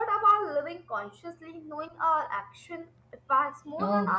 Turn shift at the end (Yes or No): Yes